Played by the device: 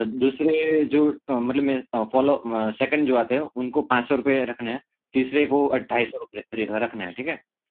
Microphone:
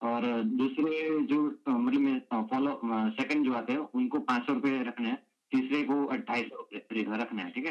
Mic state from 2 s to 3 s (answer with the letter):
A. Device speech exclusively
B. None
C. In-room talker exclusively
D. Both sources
A